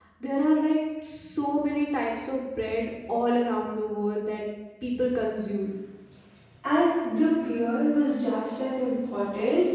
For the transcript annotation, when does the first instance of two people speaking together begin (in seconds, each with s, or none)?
none